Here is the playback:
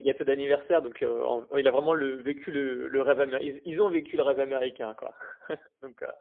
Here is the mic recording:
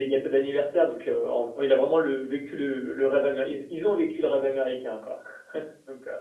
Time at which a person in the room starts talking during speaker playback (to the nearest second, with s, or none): none